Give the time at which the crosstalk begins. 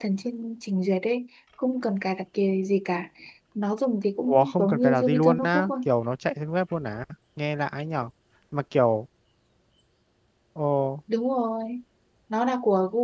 4.3 s

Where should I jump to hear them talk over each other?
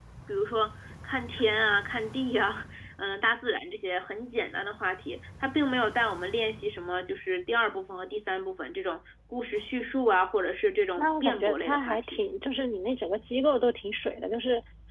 11.0 s

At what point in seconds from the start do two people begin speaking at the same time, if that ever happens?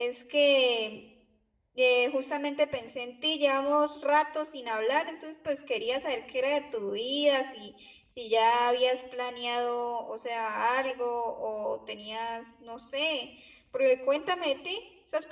none

